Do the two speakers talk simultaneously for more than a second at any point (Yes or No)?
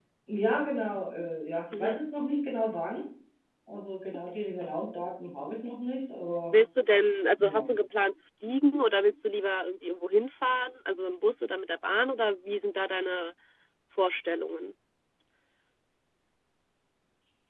No